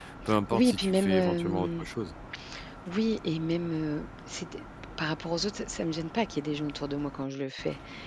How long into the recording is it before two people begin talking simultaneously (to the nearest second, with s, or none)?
1 s